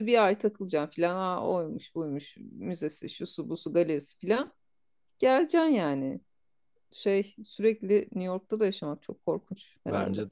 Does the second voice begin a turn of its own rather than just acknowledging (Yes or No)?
Yes